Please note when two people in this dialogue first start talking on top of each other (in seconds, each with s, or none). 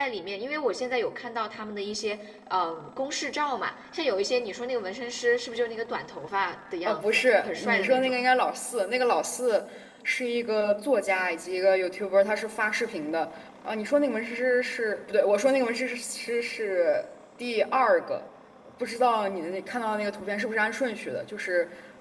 6.8 s